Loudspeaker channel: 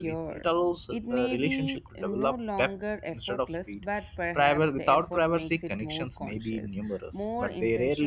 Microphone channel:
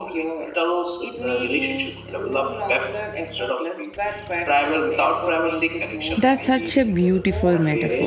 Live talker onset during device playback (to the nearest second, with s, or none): 6 s